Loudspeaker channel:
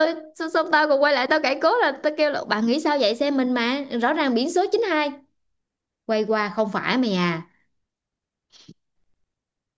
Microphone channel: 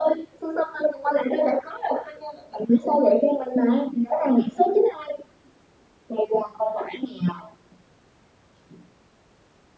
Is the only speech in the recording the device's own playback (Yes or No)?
Yes